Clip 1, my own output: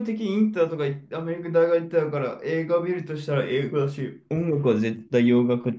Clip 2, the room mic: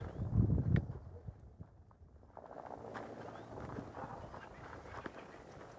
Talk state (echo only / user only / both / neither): neither